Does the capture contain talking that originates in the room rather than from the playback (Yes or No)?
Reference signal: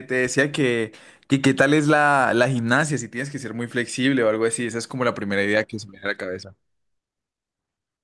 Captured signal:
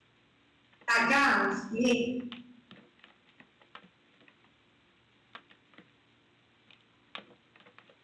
Yes